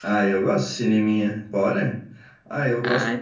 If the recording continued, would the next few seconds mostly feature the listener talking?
No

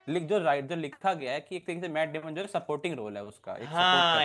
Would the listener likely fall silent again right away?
No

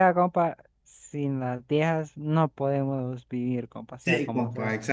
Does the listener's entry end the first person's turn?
Yes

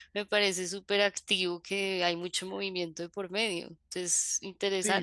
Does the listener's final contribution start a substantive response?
Yes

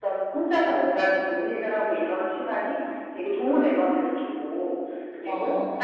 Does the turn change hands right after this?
No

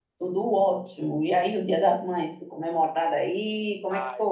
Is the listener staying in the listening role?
No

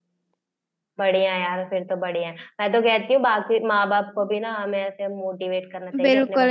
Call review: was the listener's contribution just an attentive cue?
No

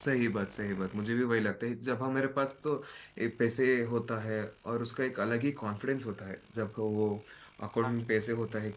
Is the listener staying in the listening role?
Yes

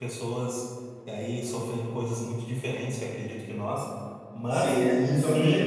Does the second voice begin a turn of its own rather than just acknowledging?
Yes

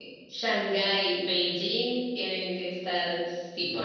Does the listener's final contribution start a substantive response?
Yes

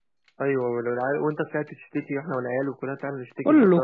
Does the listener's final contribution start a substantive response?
Yes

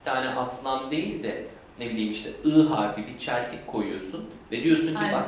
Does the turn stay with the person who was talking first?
Yes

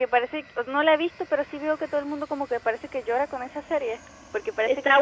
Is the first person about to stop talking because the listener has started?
Yes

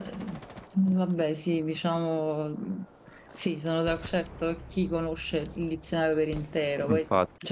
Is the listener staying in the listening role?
Yes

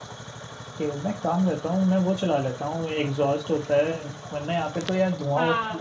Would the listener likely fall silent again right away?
No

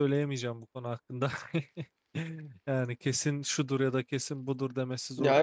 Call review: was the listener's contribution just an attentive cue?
No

